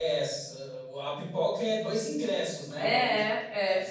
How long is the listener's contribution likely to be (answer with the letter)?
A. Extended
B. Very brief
A